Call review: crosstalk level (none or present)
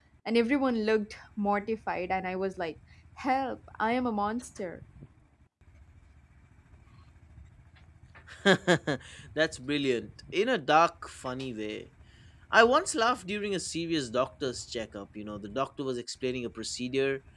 none